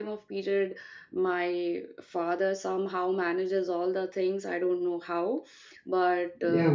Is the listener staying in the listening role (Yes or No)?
No